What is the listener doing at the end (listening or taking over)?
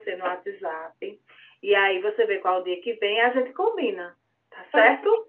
taking over